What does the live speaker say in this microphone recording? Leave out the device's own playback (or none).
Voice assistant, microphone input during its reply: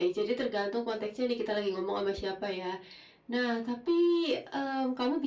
none